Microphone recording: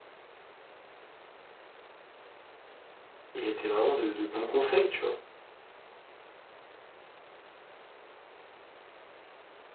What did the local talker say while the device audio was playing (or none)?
Il était vraiment de, de bons conseils, tu vois.